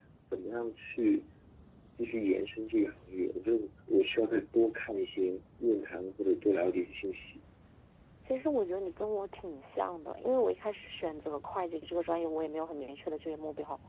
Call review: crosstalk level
none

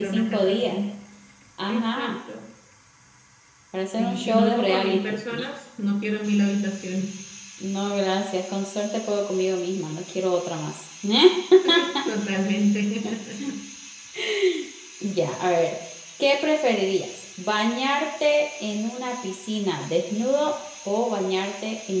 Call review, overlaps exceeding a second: present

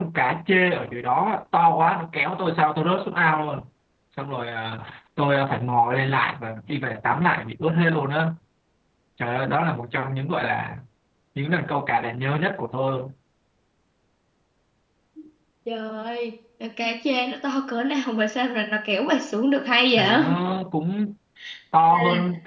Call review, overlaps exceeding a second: none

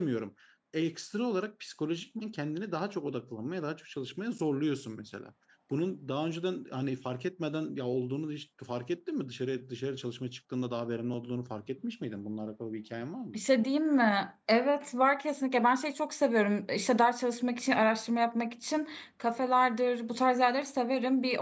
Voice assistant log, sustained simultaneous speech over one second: none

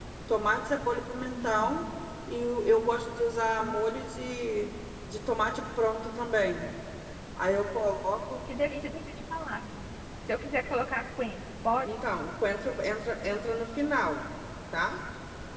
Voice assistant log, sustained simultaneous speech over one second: none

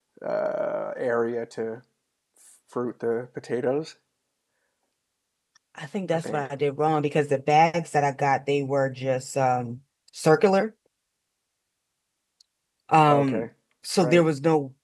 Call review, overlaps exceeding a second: none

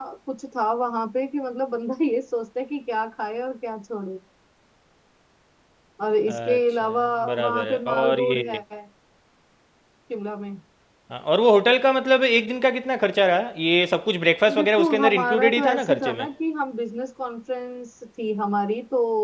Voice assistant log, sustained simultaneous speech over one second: present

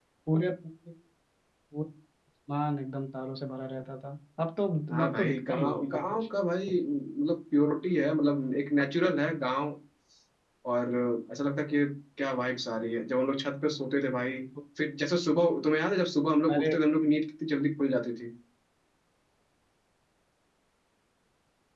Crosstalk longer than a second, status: present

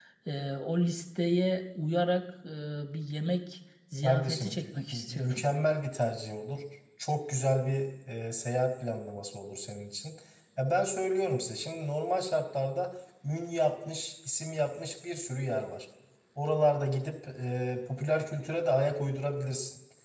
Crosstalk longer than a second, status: present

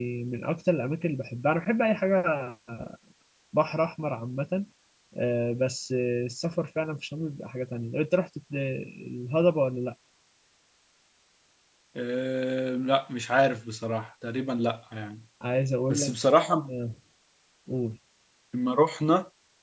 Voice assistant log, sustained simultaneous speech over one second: none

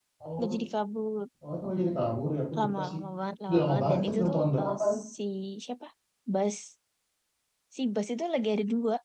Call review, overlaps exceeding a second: present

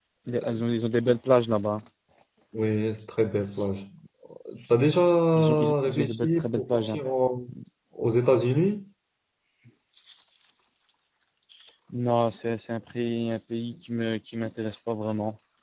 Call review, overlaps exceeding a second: present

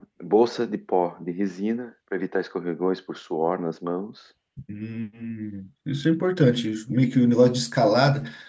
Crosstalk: none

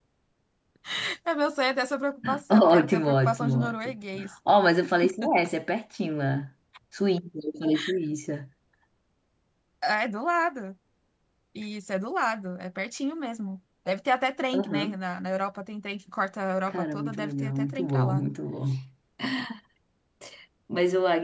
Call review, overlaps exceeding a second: present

